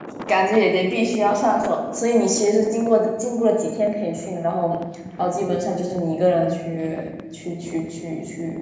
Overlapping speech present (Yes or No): No